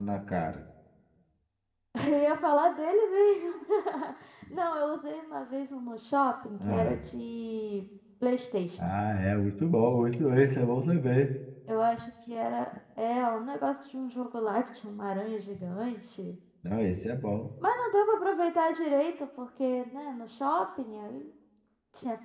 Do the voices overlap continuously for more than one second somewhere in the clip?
No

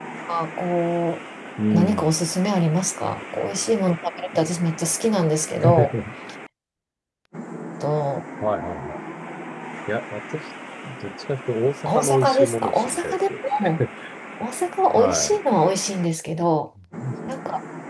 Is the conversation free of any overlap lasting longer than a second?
No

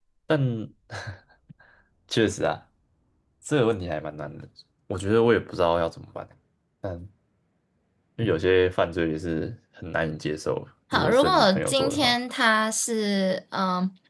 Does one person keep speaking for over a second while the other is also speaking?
Yes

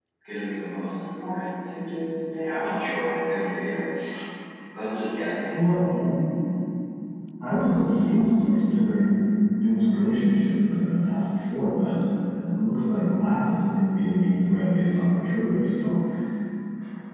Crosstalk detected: No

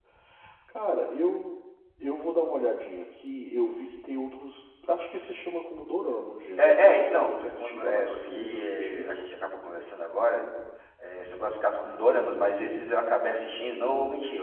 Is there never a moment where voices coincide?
No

